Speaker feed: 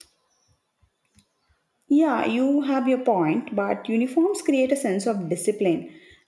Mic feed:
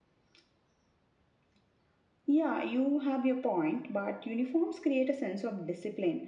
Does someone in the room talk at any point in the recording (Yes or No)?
No